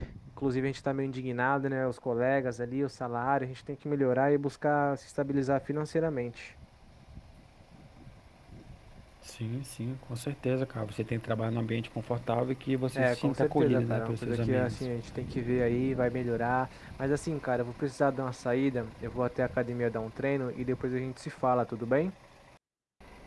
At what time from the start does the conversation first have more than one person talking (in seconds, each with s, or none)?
12.9 s